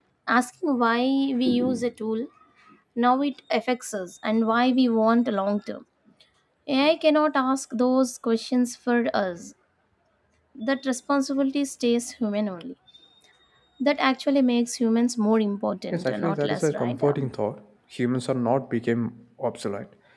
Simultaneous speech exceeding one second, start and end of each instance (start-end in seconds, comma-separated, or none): 15.9-17.3